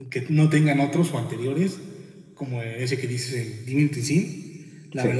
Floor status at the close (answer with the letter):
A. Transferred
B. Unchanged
B